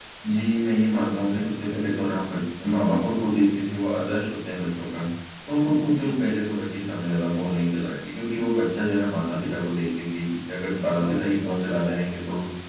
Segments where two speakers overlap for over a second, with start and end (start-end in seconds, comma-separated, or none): 10.7-12.2